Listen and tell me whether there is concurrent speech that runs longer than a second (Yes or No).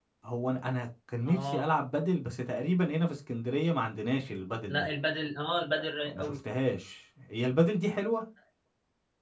No